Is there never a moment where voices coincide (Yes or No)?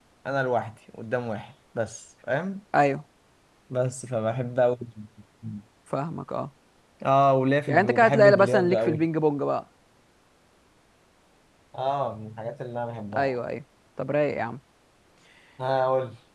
No